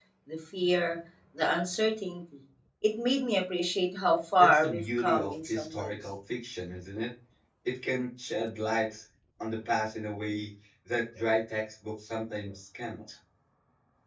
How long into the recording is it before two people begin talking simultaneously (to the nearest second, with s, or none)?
4 s